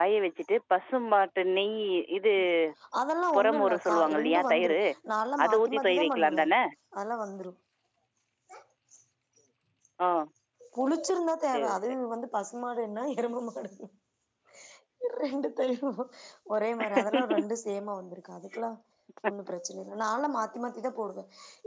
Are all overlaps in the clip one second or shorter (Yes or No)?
No